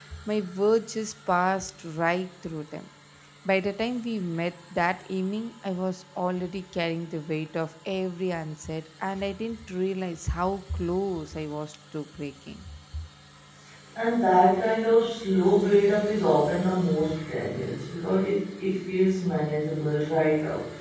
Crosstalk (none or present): none